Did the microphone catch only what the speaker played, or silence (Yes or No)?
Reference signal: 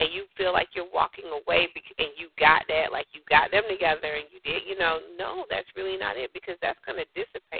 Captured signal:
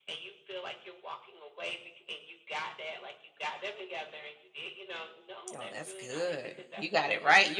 No